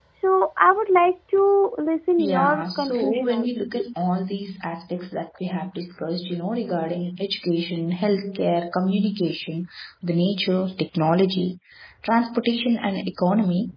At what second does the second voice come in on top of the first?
2 s

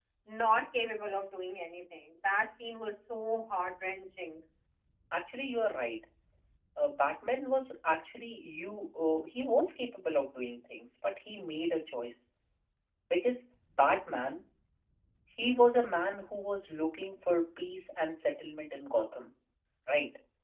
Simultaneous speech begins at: none

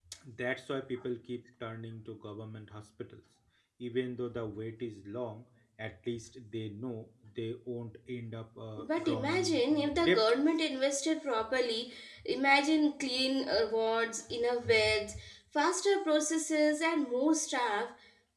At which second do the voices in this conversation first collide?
9 s

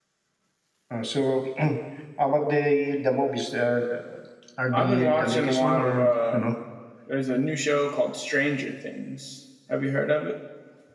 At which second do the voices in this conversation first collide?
5 s

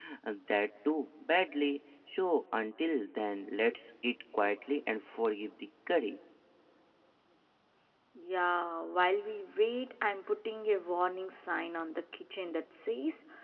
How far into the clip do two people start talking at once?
none

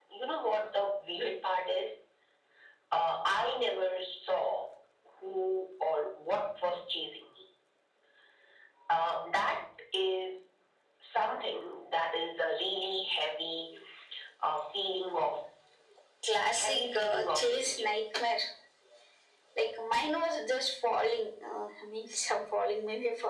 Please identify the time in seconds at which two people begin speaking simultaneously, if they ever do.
17 s

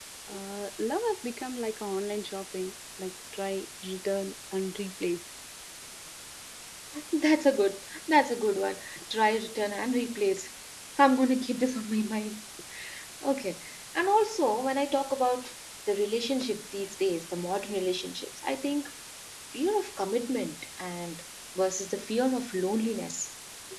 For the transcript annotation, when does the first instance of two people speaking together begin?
none

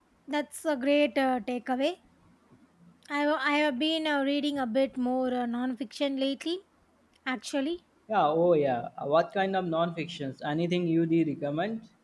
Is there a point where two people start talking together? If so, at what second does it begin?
none

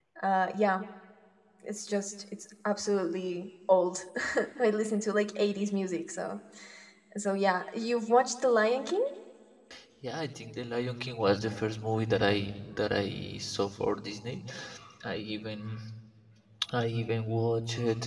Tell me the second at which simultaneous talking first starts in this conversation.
none

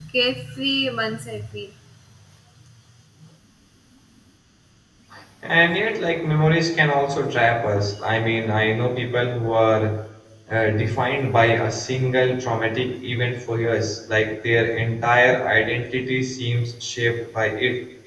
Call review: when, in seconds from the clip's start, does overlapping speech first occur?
none

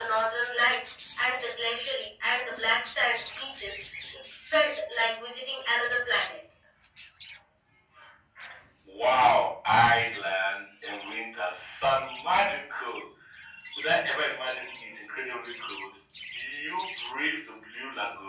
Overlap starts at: none

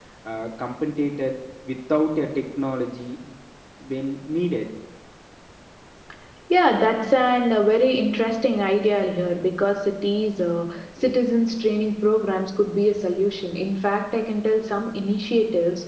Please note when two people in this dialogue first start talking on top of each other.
none

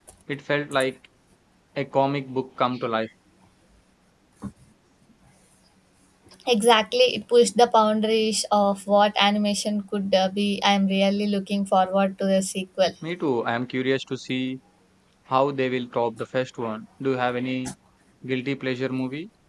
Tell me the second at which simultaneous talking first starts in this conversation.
none

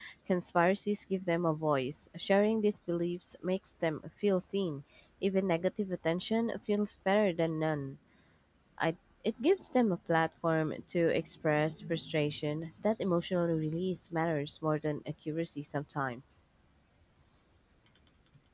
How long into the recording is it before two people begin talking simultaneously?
none

